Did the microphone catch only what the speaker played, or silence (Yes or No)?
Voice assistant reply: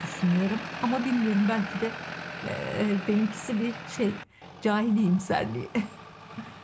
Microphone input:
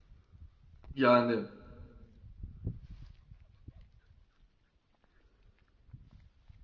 No